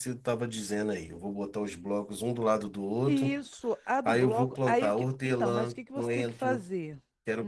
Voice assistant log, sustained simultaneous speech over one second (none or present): present